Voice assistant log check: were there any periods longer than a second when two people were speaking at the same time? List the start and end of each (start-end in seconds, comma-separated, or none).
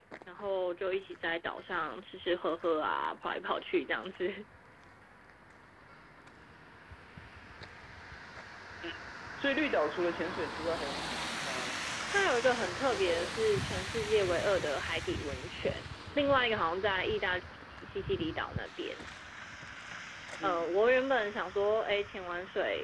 12.6-13.8